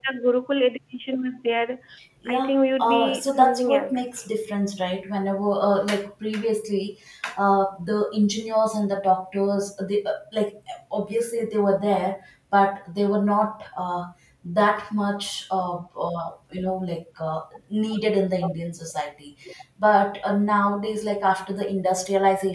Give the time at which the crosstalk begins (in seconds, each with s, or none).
2.3 s